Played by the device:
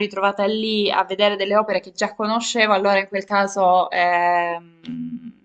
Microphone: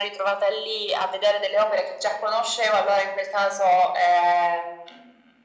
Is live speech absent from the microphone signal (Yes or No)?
Yes